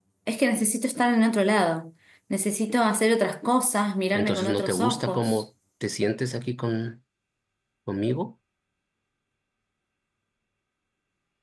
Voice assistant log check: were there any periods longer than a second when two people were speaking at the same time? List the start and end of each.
4.1-5.4

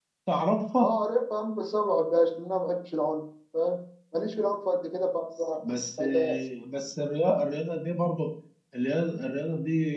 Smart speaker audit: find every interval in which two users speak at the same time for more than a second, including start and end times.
none

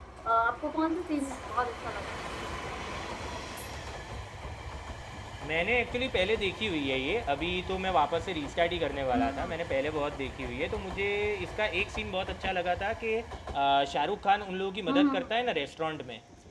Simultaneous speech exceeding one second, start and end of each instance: none

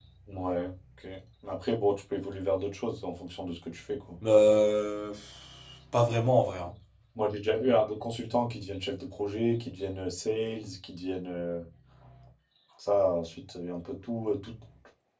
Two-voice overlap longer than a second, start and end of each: none

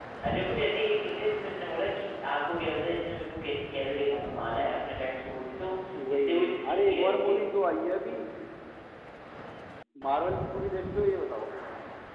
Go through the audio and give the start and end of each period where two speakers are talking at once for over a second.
6.1-7.4

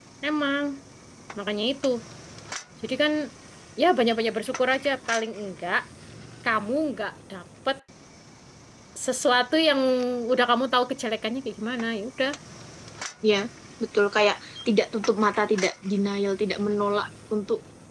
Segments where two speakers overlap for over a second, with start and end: none

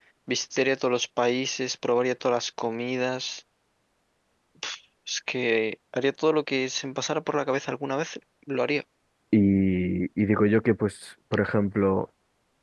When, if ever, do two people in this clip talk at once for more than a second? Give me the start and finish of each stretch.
none

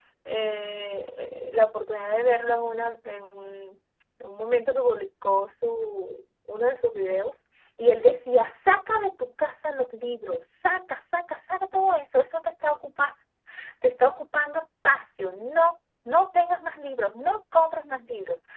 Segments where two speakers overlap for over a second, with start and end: none

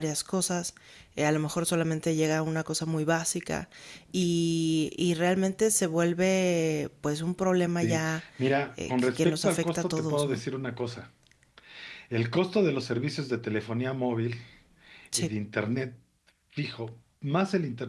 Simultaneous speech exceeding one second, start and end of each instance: 8.9-10.4

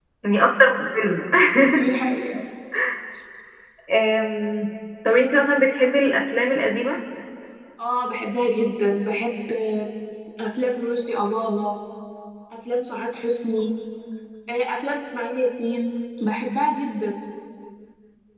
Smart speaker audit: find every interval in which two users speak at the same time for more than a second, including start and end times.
none

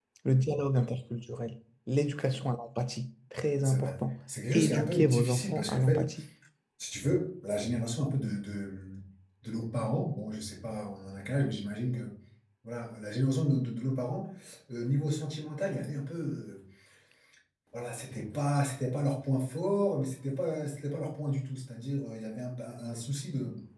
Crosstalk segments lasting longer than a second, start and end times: 4.5-6.0

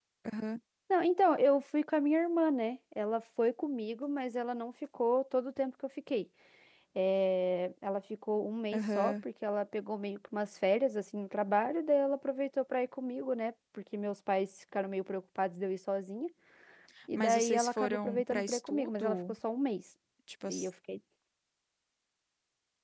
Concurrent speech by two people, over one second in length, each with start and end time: 17.1-19.2

